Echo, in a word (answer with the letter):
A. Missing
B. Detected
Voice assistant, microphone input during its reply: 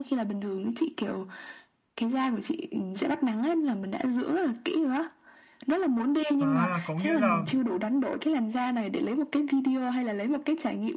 B